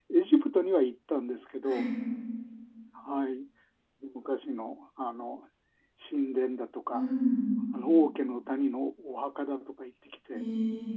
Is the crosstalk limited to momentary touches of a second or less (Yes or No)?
Yes